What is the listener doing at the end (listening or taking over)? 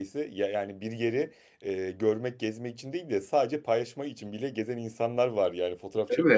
listening